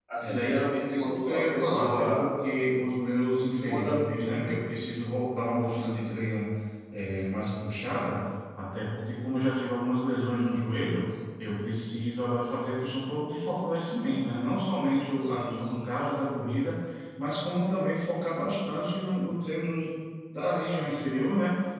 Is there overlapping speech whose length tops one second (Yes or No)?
Yes